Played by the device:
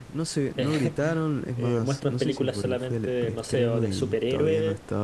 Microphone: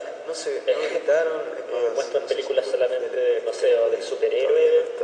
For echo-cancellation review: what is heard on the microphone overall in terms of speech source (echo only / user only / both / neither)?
echo only